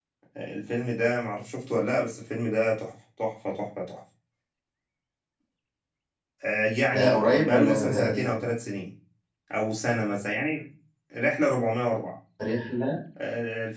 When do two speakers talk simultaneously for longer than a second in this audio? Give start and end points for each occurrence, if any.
6.9-8.3

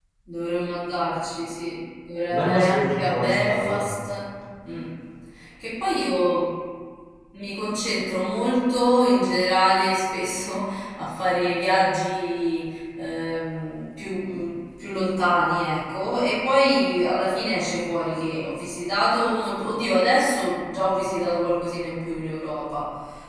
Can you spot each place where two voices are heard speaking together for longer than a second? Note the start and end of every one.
2.3-3.8

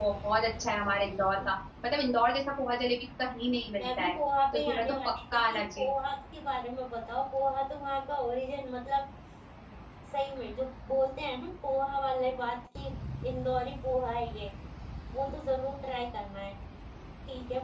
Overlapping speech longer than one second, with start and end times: 4.5-5.8

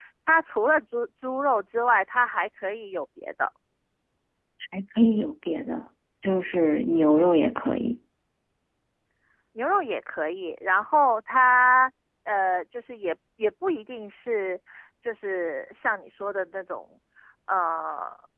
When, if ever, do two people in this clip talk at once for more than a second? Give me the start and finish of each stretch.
none

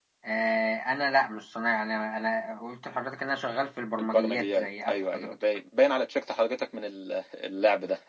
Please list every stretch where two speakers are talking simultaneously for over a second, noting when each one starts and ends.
4.0-5.3

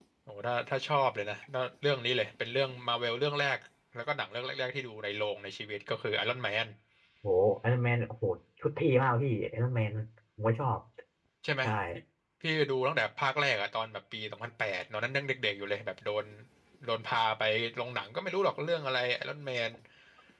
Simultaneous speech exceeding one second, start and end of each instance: none

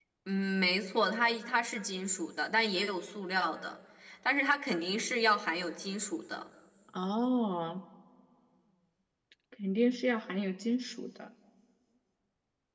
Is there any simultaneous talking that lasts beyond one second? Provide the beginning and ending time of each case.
none

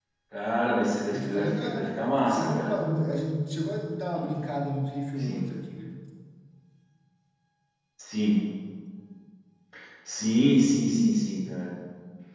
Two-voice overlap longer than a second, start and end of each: 1.1-2.8

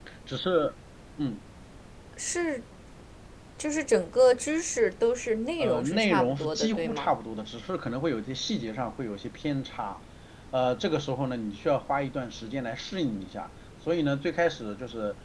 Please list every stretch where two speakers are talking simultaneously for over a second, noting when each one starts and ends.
5.6-7.1

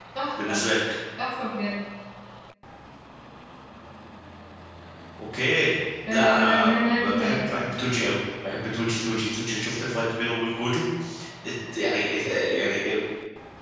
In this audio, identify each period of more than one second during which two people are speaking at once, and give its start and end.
6.1-7.6

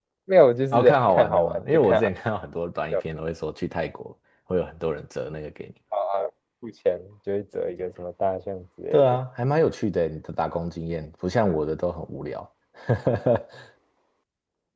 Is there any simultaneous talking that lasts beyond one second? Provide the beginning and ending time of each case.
0.7-2.0

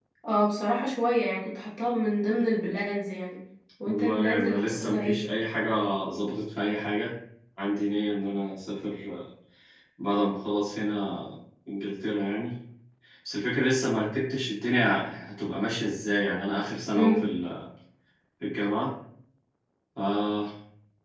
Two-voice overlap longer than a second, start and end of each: 3.8-5.2

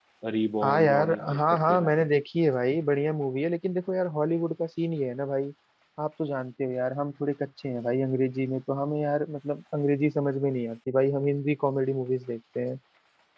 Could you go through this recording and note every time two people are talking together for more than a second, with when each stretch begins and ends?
0.6-1.9

